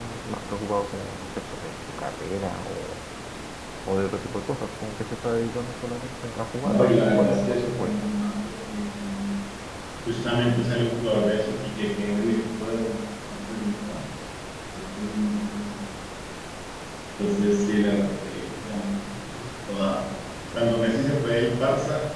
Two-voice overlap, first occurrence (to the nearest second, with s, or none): 7 s